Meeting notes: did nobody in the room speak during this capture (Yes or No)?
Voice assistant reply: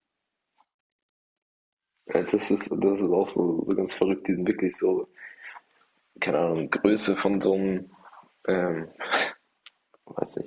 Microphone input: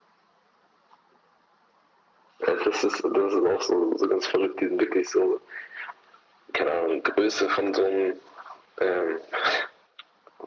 Yes